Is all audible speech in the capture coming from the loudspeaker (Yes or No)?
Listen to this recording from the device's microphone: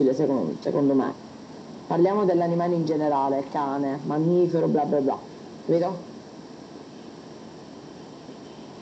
Yes